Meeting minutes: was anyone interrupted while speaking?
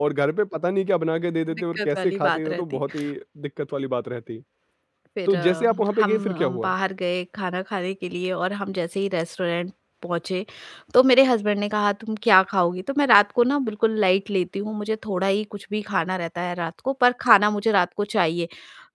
Yes, from 1.5 s

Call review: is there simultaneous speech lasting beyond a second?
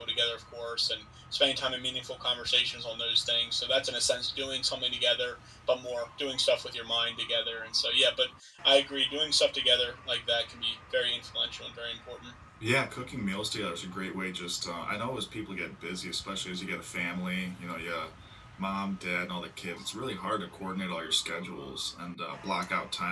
No

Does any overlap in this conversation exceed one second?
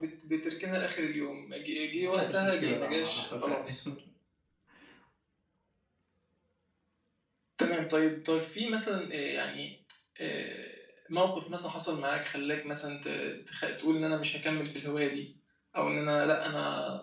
Yes, from 1.9 s

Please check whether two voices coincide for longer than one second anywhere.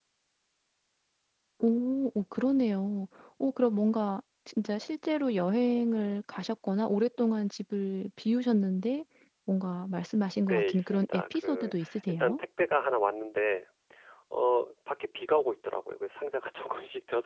Yes, from 10.4 s

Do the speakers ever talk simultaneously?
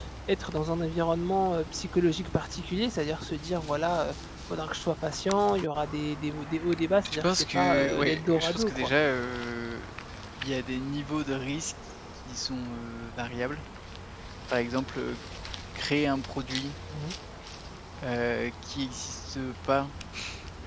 Yes, from 7.0 s

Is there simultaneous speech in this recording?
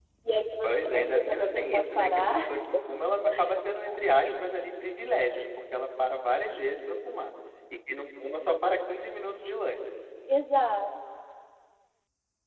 Yes, from 0.6 s

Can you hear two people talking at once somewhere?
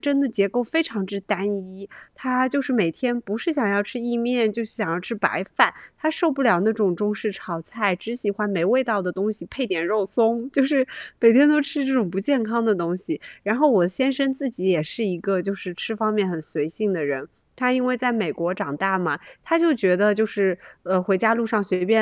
No

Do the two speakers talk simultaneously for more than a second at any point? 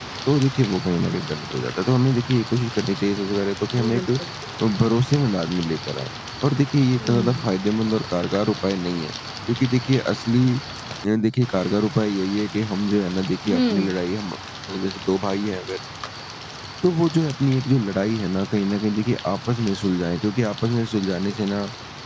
No

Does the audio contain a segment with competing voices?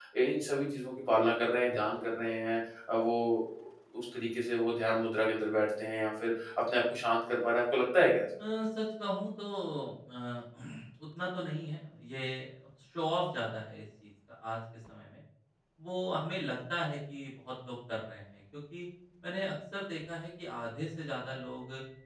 No

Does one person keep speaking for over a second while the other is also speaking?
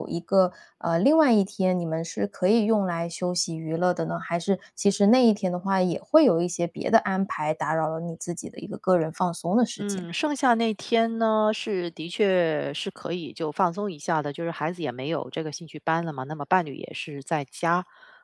No

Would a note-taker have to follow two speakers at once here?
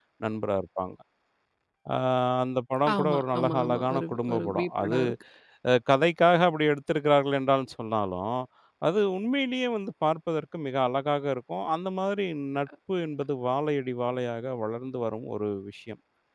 Yes, from 3.0 s

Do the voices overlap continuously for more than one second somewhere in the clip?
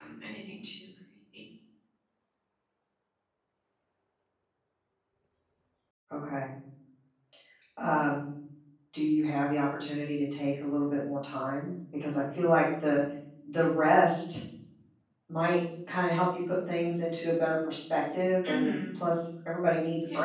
No

